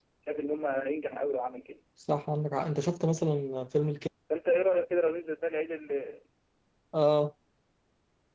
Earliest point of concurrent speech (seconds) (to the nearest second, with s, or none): none